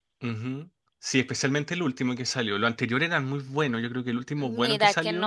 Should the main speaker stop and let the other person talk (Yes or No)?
Yes